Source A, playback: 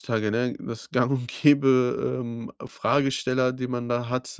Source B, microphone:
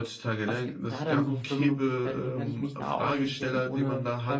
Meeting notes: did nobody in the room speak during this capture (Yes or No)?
No